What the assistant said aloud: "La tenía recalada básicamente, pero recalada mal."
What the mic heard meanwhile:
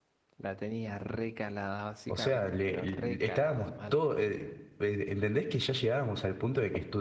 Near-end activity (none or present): present